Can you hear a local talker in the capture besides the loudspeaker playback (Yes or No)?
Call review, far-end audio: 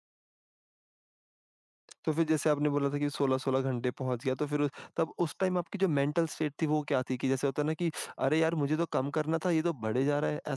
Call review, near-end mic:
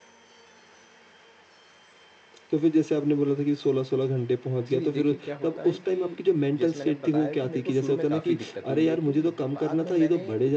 Yes